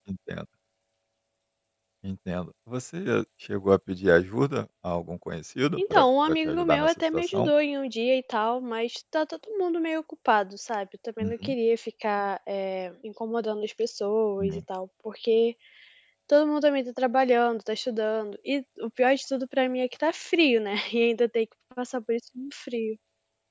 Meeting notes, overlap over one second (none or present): present